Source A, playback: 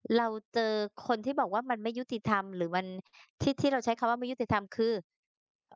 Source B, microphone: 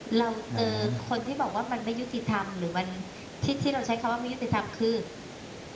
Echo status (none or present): present